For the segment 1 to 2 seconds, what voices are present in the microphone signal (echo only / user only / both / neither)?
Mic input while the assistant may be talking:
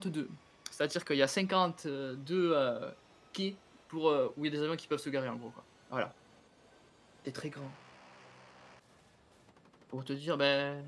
user only